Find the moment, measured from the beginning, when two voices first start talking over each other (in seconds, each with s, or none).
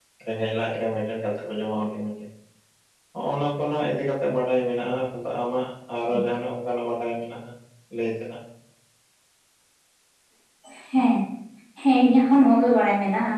none